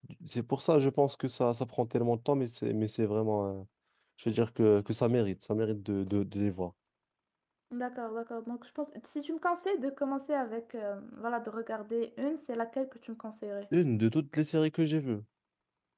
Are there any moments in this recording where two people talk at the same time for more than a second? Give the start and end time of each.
none

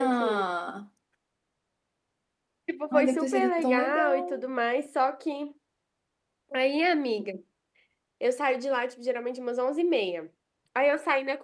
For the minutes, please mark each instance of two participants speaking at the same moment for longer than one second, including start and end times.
2.9-4.4

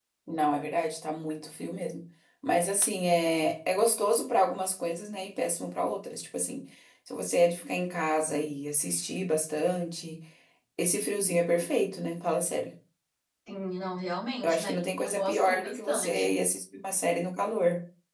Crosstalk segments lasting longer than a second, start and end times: 14.4-16.3

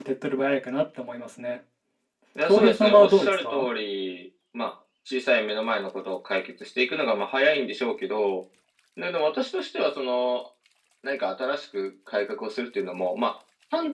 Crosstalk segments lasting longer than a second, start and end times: 2.4-3.6

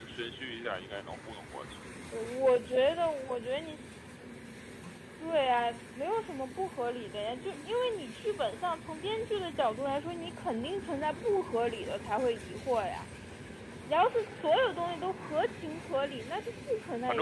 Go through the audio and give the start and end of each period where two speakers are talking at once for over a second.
none

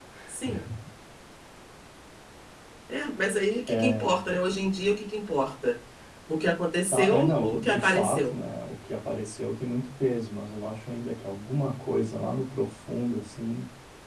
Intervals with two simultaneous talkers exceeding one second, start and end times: 6.8-8.4

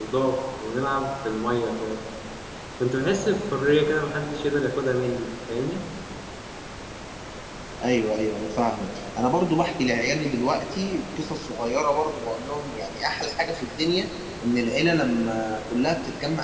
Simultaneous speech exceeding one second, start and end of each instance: none

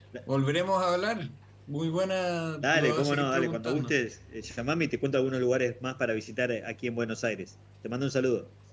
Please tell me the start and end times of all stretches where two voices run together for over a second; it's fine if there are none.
2.6-3.9

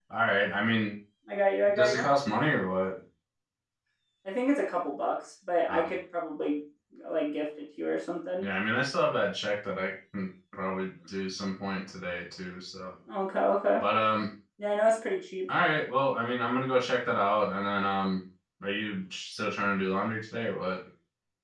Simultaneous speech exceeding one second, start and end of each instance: none

